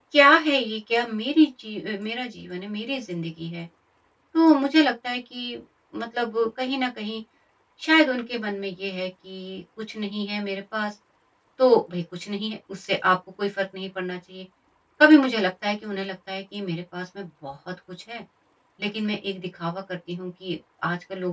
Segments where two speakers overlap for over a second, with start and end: none

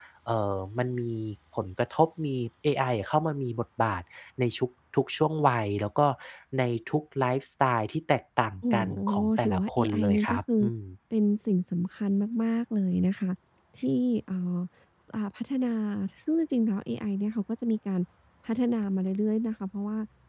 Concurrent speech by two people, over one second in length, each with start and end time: 8.7-10.6

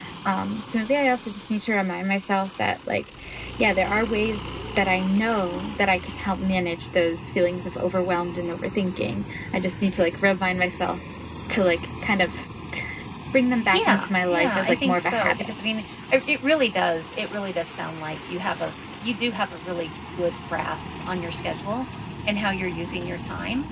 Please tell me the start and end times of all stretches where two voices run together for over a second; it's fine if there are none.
13.7-15.5

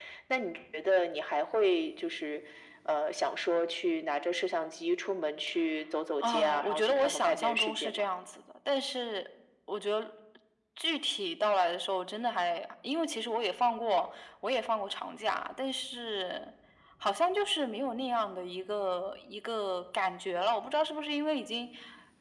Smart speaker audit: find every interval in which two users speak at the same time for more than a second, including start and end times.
6.2-8.1

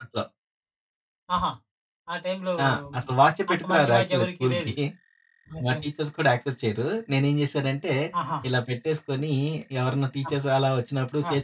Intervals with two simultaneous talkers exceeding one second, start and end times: 3.5-4.7

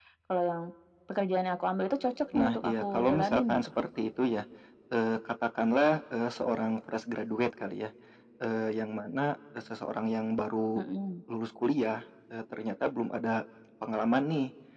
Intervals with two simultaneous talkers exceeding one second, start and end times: 2.3-3.6

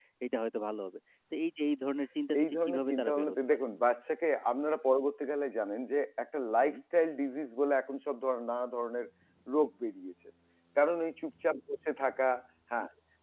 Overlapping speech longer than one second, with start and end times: 2.4-3.6

